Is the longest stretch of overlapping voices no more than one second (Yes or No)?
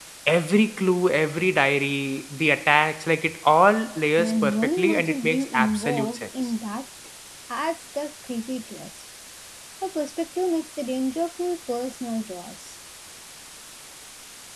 No